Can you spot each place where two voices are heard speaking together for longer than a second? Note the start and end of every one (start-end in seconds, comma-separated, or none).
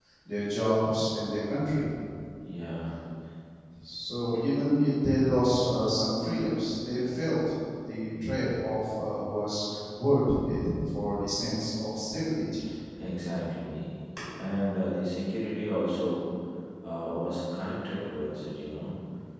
none